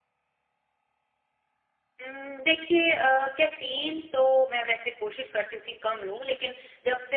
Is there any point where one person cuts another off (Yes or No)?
No